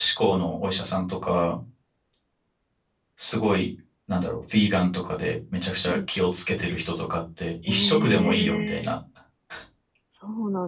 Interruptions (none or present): present